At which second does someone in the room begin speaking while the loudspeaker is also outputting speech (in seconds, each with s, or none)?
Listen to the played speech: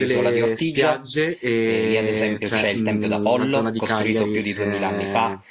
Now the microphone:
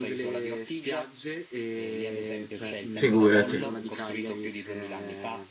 3.0 s